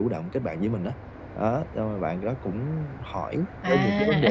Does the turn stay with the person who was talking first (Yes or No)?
Yes